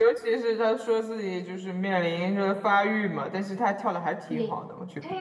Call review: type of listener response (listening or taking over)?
taking over